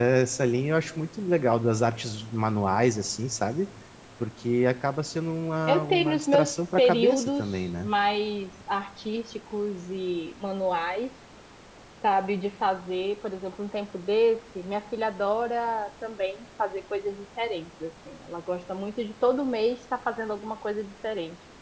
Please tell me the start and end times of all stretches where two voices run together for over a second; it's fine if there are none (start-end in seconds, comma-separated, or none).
5.7-7.9